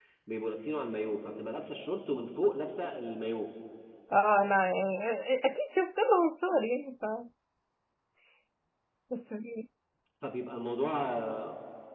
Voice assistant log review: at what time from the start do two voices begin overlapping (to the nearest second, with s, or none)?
none